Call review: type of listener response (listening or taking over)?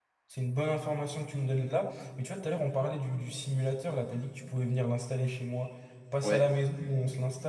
listening